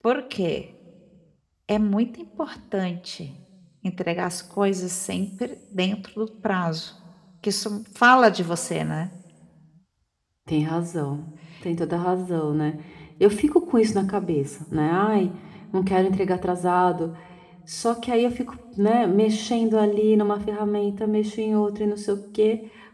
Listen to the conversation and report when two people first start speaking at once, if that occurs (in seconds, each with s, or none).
none